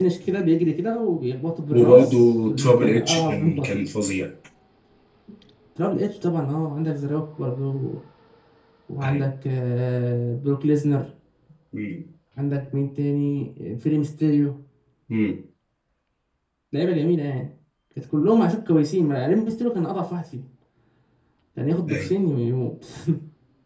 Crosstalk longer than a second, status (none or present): present